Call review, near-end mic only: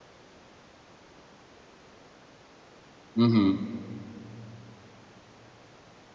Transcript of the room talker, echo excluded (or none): hmm